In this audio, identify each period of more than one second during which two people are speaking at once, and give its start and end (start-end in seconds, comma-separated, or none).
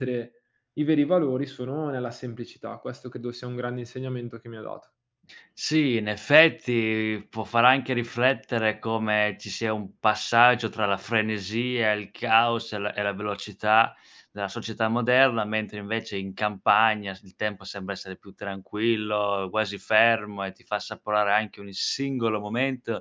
none